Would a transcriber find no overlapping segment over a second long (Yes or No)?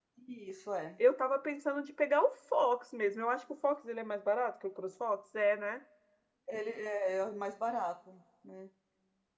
Yes